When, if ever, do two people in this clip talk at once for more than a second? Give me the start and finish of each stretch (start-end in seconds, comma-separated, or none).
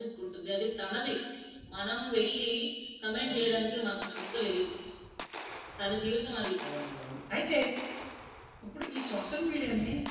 none